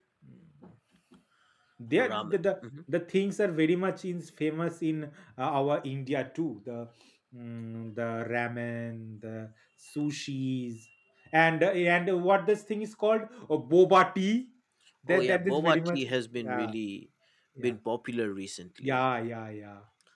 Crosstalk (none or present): present